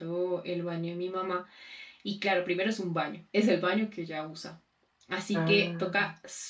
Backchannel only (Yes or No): Yes